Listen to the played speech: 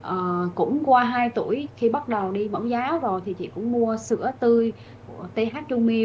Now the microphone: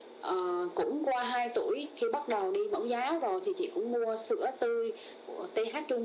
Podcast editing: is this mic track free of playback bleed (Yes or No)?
No